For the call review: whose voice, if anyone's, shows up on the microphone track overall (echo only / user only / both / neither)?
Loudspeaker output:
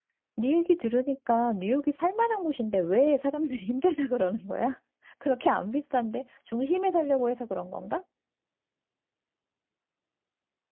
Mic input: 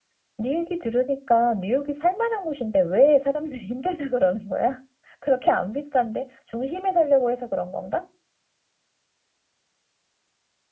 echo only